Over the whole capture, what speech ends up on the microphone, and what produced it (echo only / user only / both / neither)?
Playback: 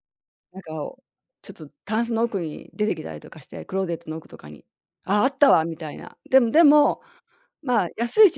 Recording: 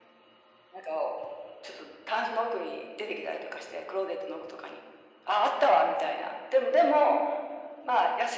echo only